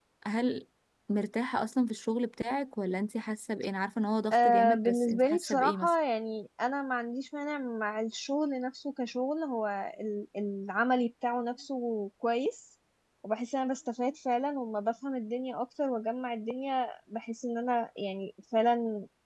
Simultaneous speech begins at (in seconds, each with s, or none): 4.3 s